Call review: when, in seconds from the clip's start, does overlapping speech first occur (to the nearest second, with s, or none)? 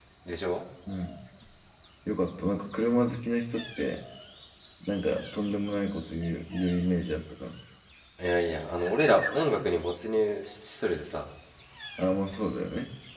none